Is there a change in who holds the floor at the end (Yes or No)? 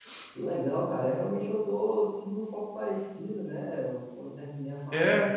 No